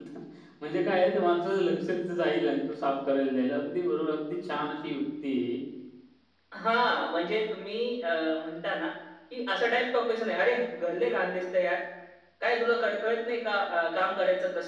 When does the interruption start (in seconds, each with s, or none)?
none